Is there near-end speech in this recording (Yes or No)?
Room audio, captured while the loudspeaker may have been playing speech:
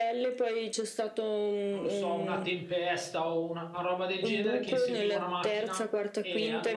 Yes